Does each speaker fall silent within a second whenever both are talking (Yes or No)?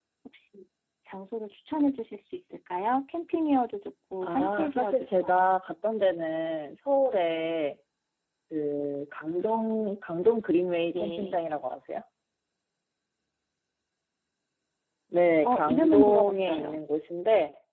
No